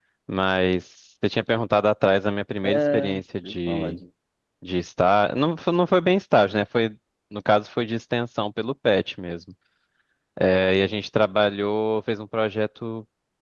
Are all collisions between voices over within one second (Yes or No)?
No